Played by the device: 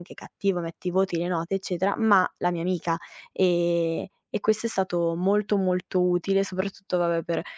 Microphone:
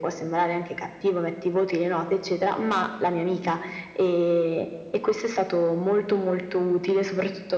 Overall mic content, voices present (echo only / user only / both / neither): both